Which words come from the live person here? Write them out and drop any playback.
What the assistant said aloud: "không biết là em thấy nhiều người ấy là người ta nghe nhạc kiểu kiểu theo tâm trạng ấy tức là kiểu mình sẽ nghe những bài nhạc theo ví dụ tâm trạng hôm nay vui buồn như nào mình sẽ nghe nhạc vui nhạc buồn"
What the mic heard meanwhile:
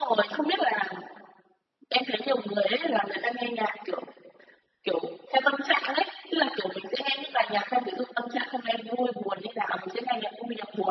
none

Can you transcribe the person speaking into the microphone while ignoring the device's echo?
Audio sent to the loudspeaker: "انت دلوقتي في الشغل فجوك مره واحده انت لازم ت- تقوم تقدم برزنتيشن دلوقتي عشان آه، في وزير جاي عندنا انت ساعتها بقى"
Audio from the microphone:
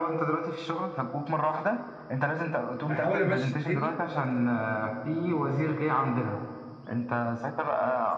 هحاول امشي الدنيا

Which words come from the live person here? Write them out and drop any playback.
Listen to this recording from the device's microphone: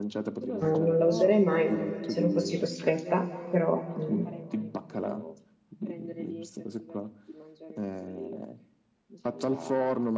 non la userei mai se non fossi costretta, però, mm,

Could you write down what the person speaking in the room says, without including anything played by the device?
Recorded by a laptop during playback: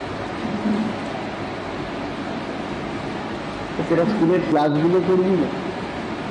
তো তোরা স্কুলের ক্লাসগুলো করবি না

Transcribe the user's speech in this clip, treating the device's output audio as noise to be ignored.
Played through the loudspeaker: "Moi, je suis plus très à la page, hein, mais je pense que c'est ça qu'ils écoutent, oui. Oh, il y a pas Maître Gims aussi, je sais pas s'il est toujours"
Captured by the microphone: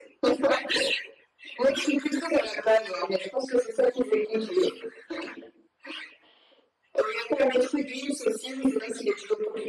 none

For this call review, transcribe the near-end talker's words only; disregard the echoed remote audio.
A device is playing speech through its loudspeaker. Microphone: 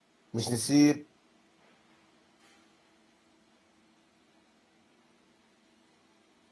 مش نسيب

